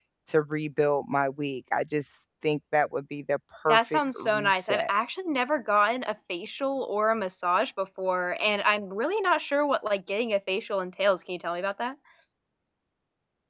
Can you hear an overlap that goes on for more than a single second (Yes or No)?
Yes